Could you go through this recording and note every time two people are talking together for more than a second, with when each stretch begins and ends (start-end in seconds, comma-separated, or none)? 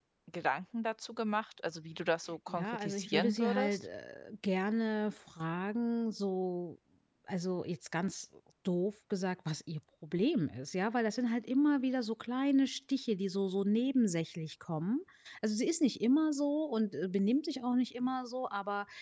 2.5-3.8